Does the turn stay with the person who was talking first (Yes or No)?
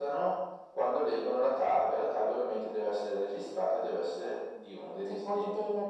No